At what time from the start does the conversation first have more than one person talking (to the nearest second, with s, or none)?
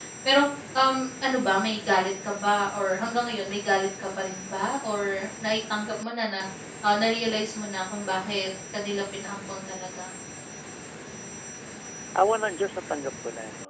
none